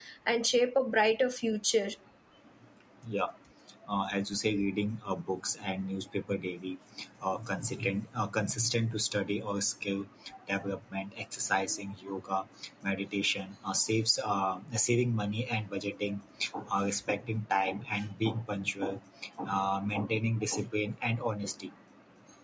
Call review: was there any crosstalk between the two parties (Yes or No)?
No